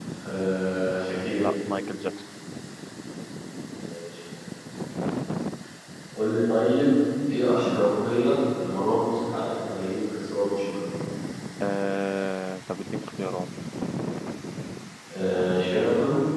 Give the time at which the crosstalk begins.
none

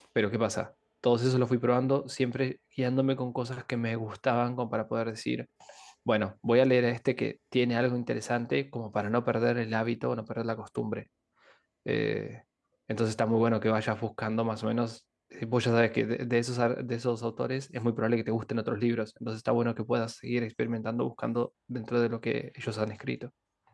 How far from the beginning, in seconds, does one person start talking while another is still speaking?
none

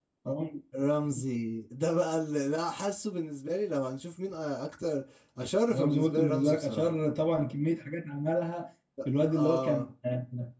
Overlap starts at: 6 s

